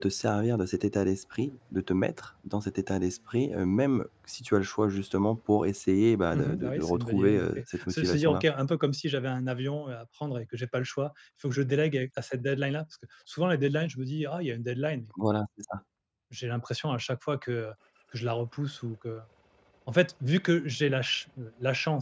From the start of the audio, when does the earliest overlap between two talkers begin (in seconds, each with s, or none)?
6.3 s